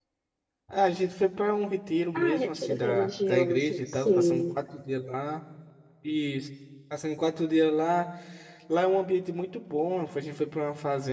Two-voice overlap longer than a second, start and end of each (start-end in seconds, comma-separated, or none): 2.1-4.4